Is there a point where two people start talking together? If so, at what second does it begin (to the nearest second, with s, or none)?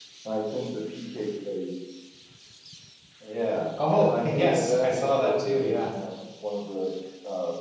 4 s